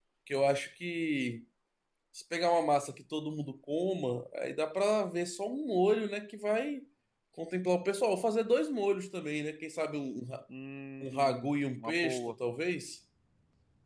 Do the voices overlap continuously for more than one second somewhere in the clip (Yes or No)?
Yes